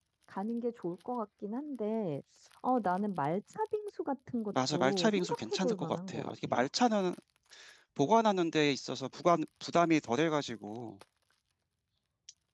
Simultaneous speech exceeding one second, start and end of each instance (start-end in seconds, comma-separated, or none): 4.7-6.7